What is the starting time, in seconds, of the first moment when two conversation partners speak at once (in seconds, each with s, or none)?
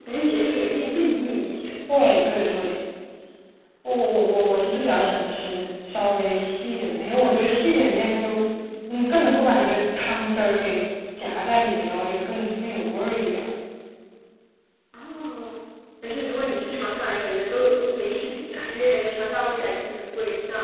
none